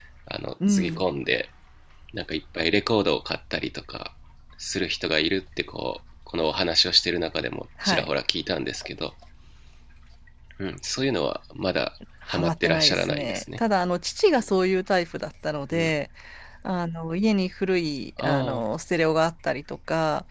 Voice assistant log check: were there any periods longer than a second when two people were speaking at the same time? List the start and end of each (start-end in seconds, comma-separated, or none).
12.3-13.6